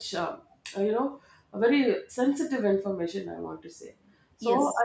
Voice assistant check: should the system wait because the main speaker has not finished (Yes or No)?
Yes